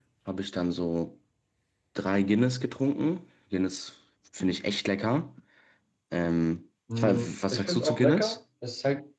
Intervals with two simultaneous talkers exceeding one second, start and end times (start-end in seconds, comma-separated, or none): 6.9-8.4